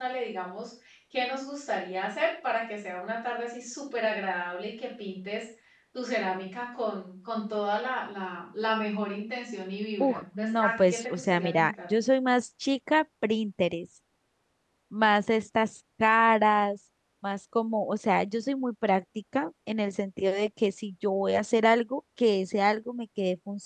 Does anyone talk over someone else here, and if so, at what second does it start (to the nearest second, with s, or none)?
10 s